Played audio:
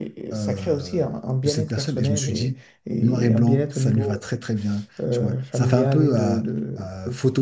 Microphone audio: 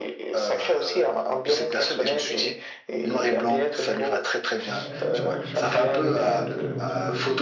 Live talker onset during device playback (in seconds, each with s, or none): 4.6 s